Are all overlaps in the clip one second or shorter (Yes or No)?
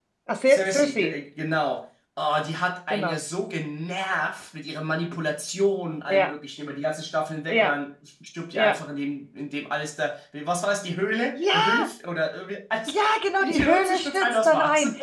No